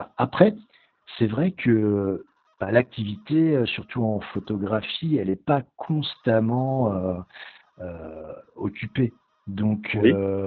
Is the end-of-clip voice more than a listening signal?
No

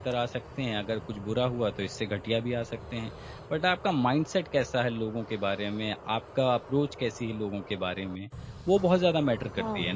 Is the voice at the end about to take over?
Yes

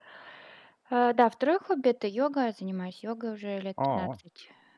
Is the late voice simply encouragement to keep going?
Yes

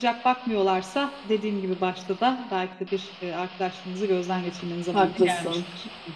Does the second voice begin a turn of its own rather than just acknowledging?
Yes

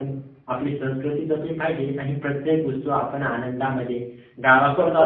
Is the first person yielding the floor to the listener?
No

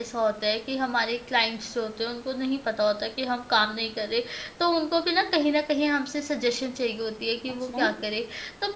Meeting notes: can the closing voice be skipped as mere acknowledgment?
Yes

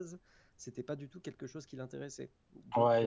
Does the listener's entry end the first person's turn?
Yes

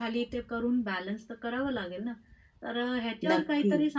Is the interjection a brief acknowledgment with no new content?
Yes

